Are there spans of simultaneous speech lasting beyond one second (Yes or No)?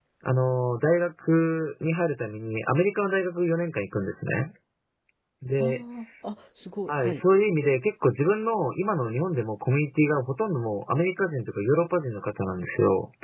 No